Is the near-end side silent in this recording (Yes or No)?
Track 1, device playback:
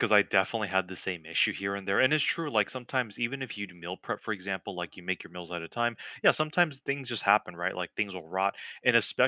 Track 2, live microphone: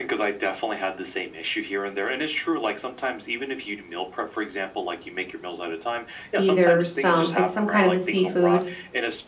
No